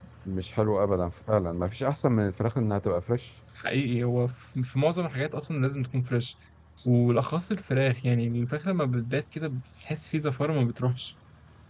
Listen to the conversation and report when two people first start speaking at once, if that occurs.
none

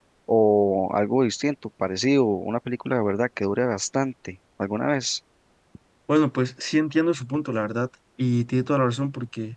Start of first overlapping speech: none

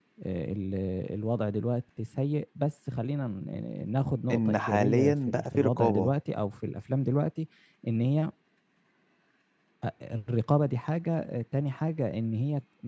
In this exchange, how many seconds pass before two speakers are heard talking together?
4 s

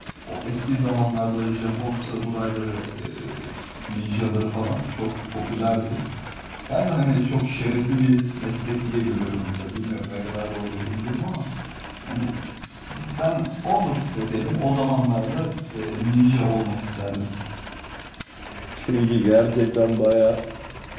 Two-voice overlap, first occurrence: none

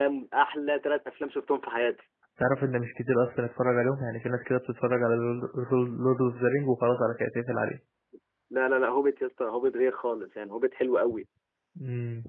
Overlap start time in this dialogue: none

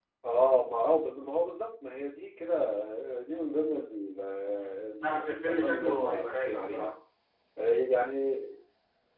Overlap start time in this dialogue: 5 s

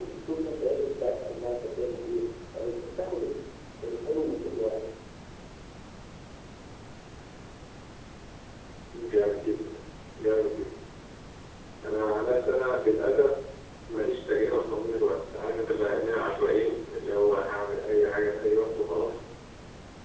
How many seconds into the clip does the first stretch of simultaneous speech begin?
none

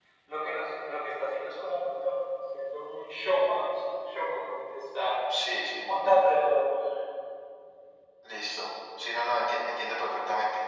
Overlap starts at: none

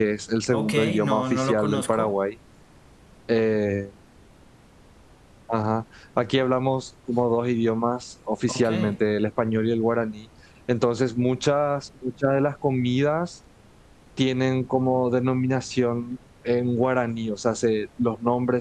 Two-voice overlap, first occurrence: 1 s

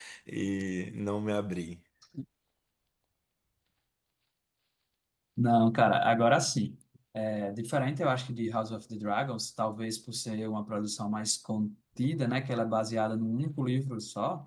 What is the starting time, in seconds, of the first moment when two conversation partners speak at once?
none

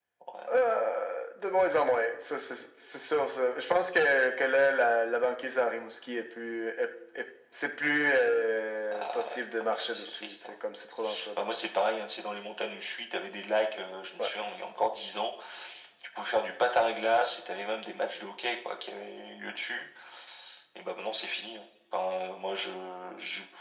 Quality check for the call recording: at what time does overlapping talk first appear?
9 s

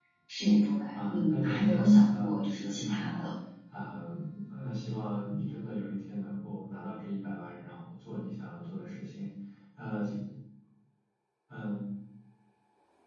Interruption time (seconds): 1 s

